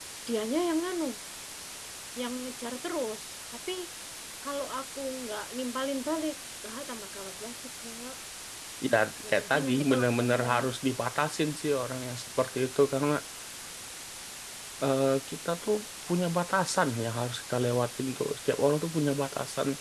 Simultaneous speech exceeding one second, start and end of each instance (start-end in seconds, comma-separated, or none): 9.3-10.6